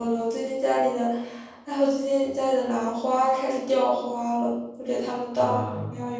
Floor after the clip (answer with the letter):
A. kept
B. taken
A